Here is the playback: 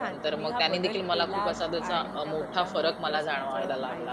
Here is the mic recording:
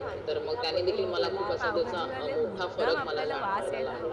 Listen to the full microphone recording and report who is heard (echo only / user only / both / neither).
both